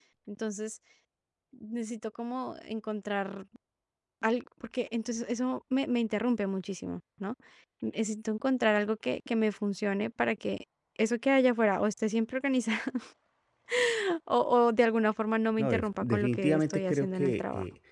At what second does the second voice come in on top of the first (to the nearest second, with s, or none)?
16 s